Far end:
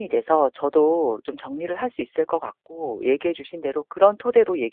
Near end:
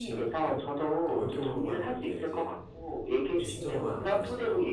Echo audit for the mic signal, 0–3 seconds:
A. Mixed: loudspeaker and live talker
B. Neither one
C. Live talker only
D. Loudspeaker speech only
A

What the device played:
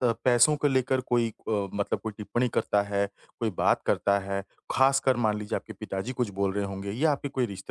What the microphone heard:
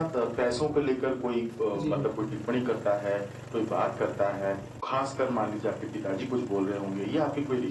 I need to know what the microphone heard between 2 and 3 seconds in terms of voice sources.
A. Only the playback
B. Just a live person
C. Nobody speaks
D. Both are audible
D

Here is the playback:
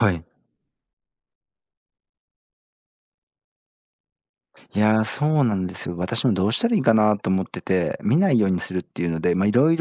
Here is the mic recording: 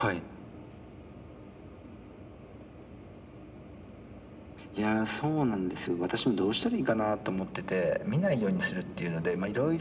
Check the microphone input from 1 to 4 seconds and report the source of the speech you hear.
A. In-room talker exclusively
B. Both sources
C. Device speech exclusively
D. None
D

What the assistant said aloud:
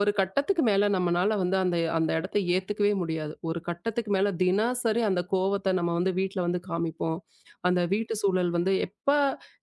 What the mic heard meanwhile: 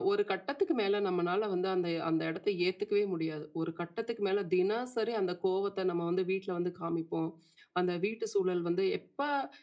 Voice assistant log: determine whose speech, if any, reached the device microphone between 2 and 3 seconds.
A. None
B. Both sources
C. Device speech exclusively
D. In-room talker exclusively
C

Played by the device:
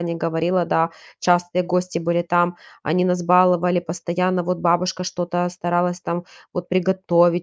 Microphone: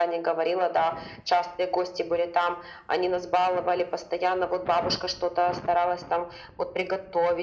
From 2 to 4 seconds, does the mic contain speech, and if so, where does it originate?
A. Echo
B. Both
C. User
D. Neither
A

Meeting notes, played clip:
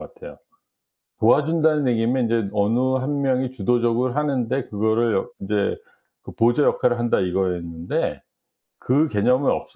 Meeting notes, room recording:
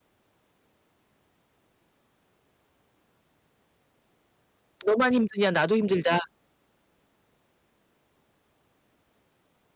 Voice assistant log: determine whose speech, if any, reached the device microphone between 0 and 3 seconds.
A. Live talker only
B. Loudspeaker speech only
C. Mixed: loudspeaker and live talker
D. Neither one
D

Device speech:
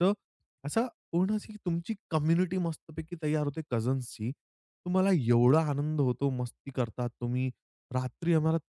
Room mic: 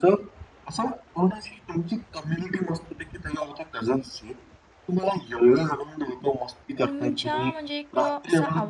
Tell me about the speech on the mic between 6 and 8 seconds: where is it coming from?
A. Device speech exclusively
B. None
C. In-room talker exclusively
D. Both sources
D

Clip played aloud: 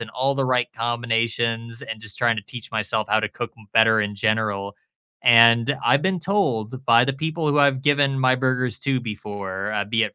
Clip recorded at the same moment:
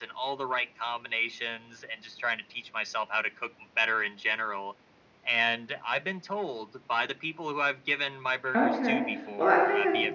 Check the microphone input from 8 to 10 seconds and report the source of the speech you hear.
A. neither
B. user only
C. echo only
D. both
D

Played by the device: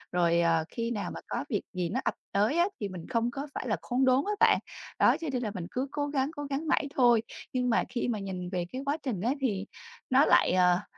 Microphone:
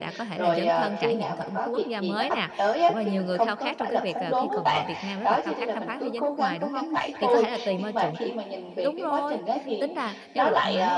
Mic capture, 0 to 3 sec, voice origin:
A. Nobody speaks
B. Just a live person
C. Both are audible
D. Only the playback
C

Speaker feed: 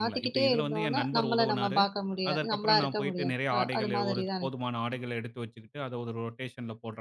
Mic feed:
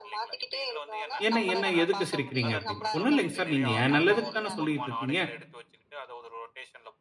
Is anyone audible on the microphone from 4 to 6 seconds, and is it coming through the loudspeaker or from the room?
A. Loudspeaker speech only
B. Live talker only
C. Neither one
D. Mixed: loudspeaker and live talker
D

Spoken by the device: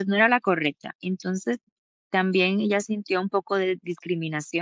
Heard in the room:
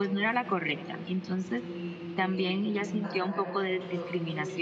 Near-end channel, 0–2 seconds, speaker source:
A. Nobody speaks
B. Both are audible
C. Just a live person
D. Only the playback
B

